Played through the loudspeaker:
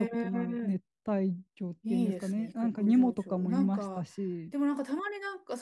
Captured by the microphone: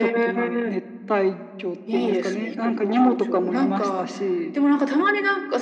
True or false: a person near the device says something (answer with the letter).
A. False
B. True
A